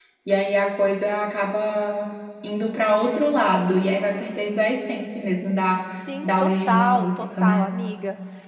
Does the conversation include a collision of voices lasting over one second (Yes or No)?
Yes